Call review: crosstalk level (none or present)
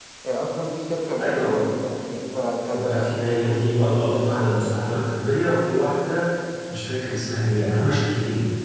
present